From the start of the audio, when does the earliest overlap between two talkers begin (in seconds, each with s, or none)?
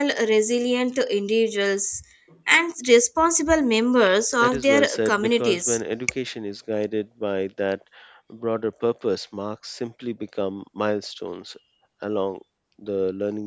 4.4 s